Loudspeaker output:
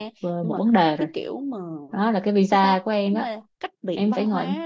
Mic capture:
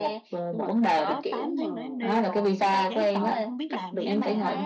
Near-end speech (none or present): present